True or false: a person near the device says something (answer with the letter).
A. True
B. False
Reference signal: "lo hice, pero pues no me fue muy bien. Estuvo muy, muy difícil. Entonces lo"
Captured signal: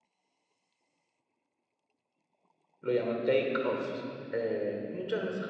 A